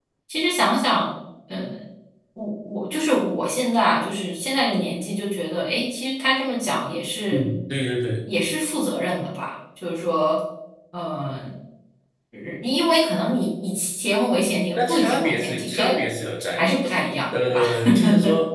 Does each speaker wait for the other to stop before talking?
No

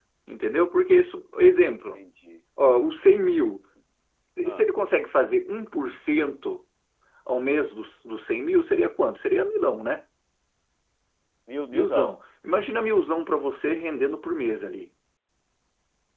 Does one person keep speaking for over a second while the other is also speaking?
No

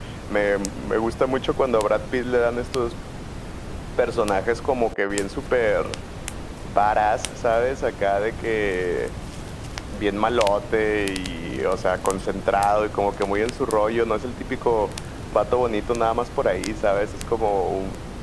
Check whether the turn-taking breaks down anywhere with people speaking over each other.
No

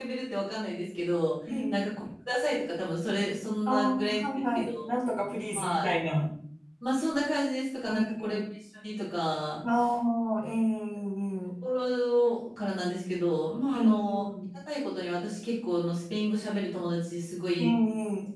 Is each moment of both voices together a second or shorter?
No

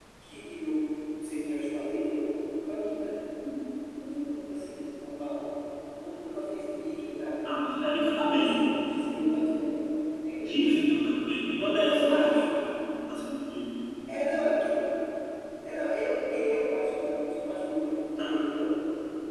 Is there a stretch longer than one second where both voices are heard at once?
Yes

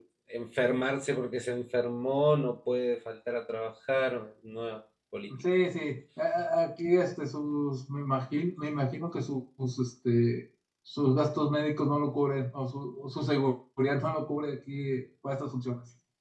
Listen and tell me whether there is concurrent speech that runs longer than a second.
No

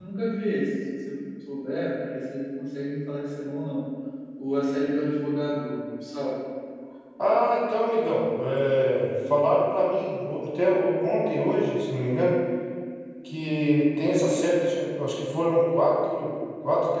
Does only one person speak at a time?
Yes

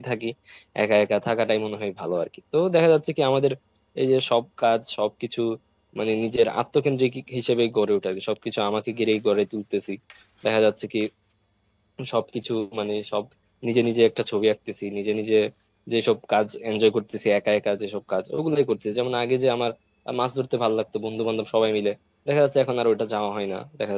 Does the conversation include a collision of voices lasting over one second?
No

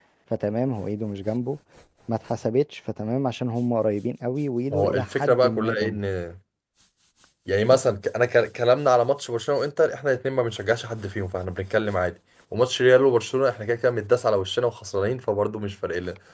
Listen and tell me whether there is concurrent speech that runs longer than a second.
Yes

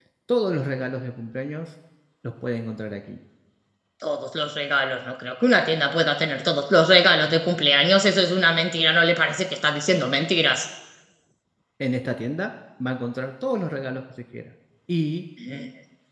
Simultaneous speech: No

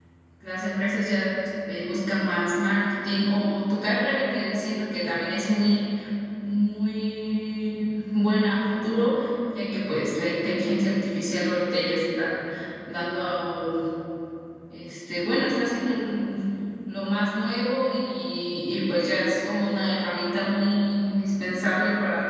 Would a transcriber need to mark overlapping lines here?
No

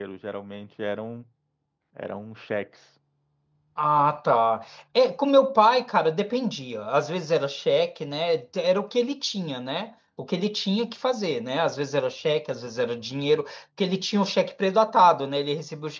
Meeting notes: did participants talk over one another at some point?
No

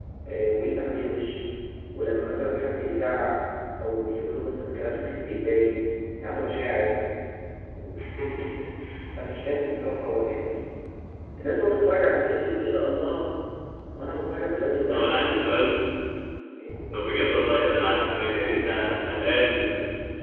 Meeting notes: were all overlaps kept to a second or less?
Yes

